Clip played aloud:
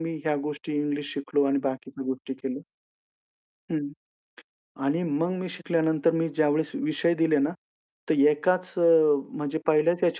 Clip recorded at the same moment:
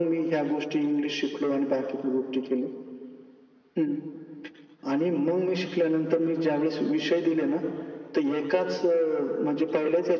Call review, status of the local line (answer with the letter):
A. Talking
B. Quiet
B